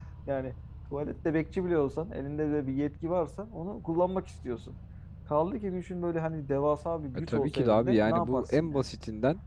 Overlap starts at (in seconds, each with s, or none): 7.3 s